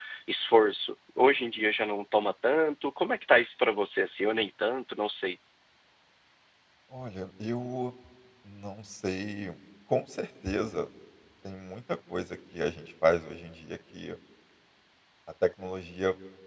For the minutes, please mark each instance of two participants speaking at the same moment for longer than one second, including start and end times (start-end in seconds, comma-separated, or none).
none